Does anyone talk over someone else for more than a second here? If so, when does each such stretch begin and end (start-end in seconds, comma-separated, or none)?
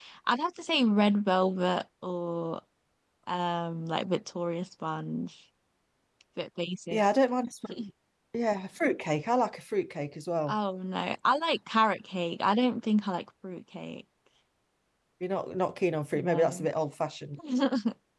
none